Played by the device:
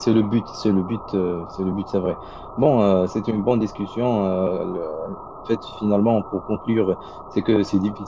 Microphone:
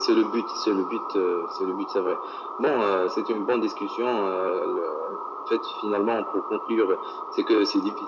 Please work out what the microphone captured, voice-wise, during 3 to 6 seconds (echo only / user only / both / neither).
echo only